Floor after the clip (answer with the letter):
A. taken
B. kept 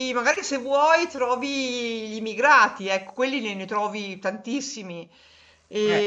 B